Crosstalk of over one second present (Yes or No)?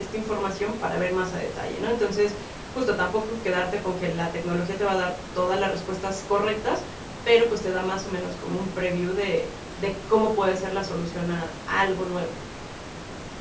No